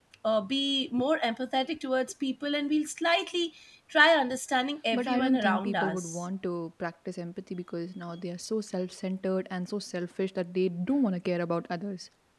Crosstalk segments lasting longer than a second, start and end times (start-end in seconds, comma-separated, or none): 5.0-6.2